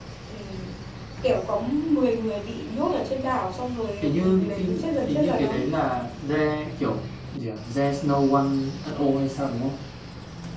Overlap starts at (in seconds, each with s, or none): 4.0 s